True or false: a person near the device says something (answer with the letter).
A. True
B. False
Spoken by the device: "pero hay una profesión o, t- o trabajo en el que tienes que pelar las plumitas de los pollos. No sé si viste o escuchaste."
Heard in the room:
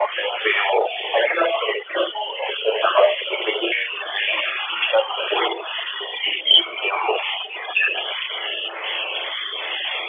B